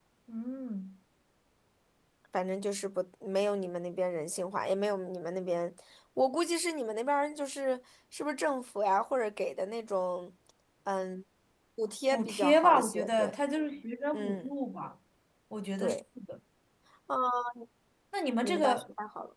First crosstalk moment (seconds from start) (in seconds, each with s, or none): 12.1 s